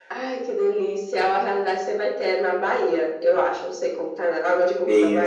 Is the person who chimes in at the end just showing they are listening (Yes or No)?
No